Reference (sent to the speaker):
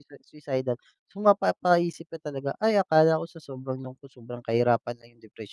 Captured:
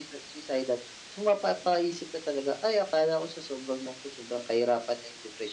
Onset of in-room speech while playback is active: none

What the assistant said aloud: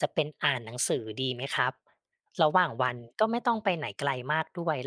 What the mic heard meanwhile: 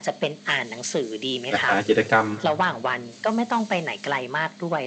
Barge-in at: 1.5 s

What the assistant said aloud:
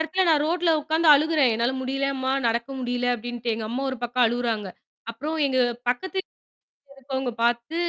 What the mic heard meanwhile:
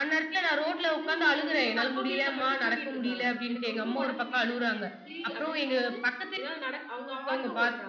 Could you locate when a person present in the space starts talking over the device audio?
1.0 s

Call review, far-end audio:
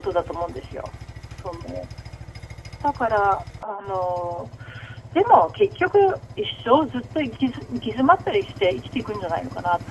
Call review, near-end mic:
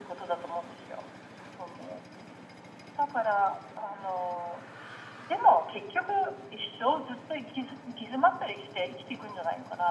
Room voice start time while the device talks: none

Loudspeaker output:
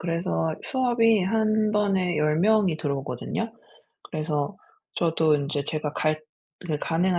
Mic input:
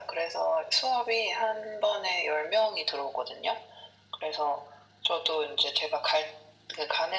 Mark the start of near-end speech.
none

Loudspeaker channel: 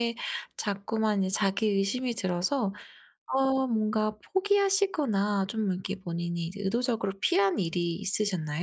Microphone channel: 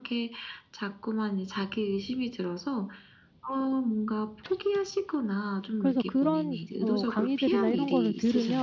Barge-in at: 5.8 s

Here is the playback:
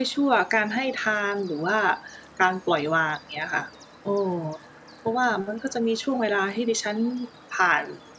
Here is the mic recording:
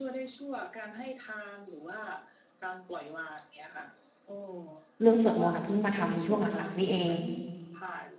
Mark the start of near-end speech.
5.0 s

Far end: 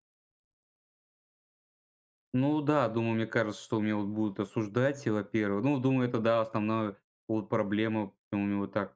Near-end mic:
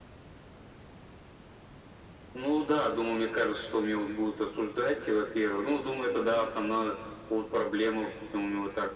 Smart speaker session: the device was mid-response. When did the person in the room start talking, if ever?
none

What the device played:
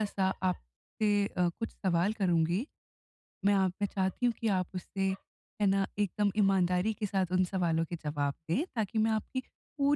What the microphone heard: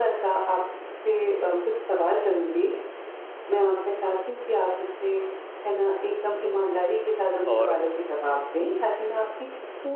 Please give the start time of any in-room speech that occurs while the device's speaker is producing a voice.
7.5 s

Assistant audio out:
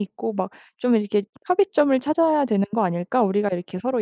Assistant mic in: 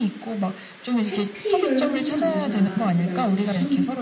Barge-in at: 1.1 s

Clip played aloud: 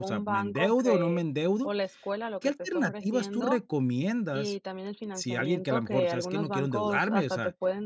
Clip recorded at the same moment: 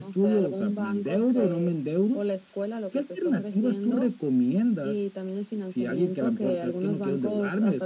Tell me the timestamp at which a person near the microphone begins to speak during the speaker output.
none

